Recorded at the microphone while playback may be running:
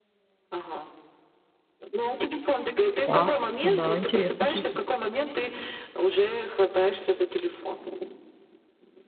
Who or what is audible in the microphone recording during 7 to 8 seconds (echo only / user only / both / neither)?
echo only